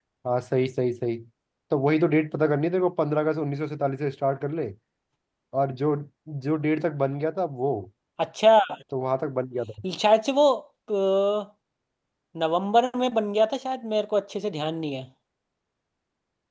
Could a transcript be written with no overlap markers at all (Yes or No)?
Yes